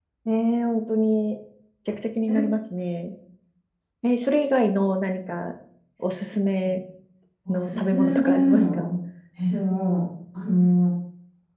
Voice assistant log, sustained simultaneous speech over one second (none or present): present